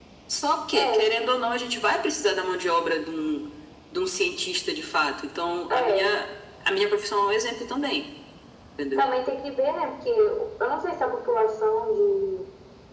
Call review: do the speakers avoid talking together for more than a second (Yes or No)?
Yes